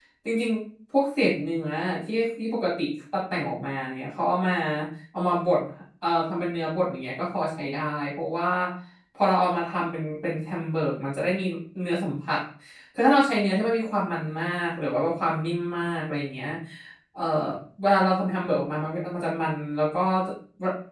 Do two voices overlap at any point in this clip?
No

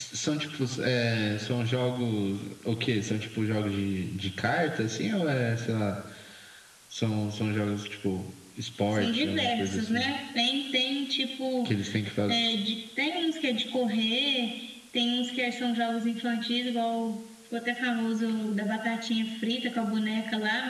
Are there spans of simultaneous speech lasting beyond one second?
Yes, from 8.9 s

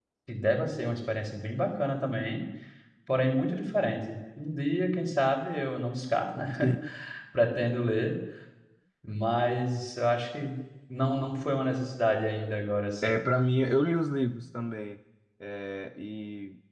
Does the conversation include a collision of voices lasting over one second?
No

